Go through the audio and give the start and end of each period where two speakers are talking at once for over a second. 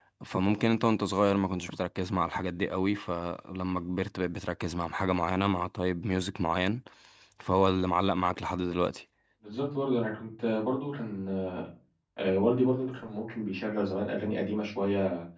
none

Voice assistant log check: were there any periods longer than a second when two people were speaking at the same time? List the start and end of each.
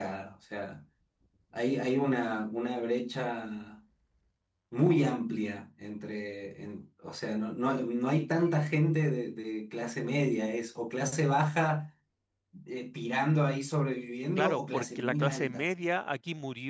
14.4-15.6

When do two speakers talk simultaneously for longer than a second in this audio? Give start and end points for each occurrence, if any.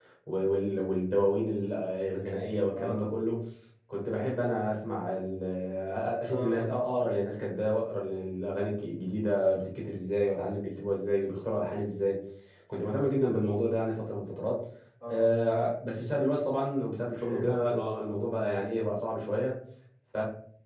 none

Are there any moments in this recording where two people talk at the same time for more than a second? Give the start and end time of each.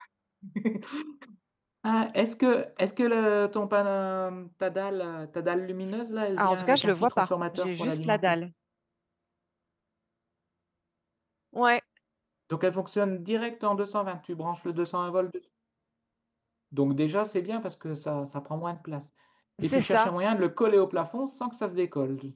6.4-8.4

